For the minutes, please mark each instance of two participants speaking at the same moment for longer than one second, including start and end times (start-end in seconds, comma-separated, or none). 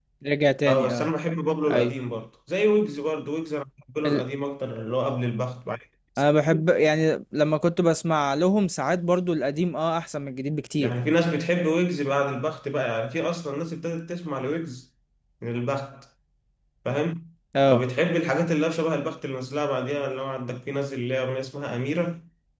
none